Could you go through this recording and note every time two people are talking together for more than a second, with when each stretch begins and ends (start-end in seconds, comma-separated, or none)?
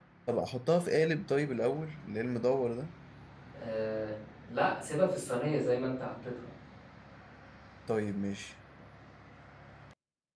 none